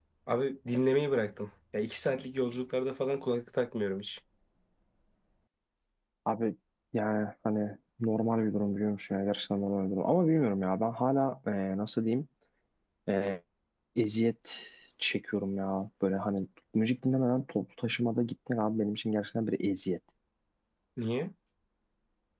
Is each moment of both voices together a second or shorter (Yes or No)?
Yes